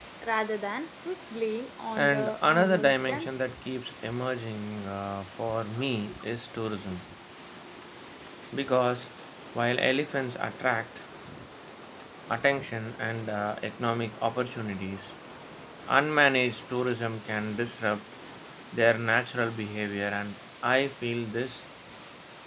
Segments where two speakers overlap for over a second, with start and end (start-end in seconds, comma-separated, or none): 2.0-3.5